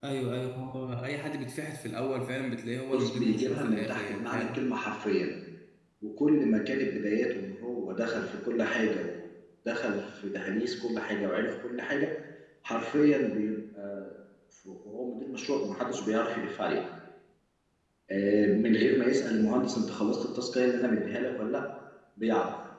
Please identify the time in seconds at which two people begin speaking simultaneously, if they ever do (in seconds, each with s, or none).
2.9 s